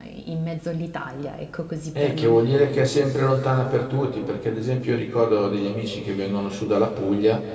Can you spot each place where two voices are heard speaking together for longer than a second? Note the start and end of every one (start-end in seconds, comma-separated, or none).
none